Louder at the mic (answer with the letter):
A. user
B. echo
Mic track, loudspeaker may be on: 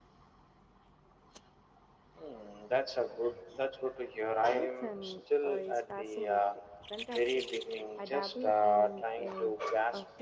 B